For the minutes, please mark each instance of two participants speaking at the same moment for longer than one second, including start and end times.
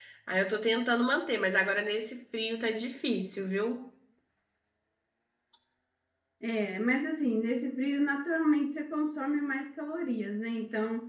none

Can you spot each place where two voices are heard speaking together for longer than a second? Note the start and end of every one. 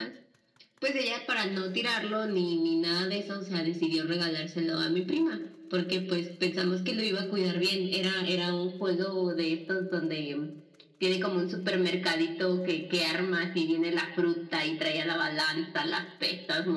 none

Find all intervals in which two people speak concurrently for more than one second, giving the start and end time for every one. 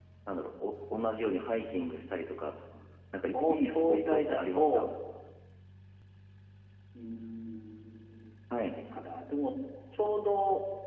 3.3-4.8

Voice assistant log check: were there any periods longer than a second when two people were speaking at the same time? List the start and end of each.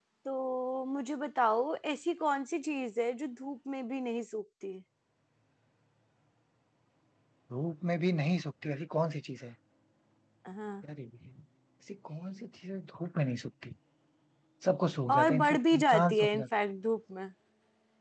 15.1-16.4

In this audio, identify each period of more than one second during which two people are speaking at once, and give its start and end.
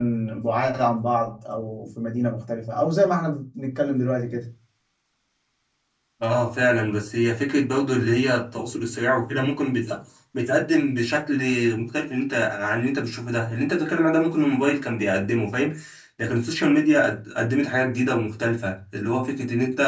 none

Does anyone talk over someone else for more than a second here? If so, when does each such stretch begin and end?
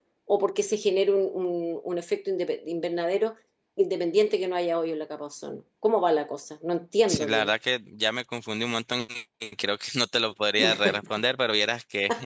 none

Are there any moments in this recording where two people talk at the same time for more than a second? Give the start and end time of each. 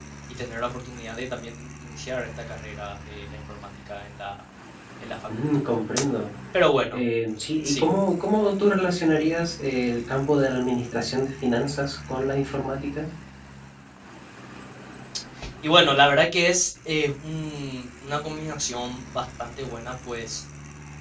none

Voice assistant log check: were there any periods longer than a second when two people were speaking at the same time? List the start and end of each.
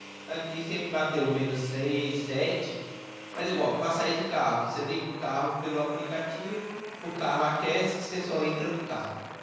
none

